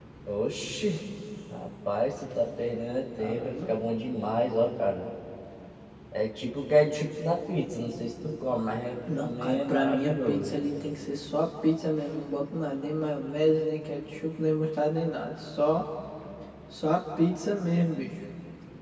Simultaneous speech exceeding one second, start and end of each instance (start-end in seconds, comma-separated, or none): 9.2-10.6